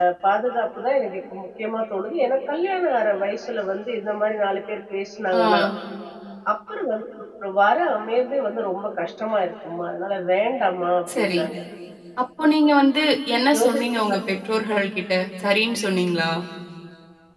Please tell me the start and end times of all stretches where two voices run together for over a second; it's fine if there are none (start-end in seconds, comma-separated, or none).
none